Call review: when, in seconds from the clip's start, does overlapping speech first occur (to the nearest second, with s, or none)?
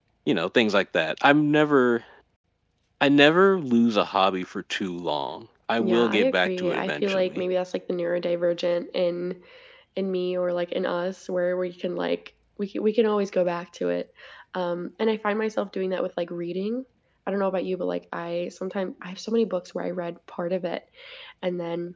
6 s